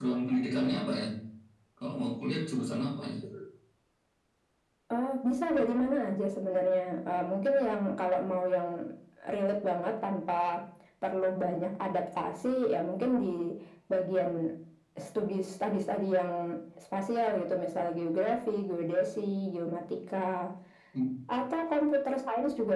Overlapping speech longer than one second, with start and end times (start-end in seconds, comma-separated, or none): none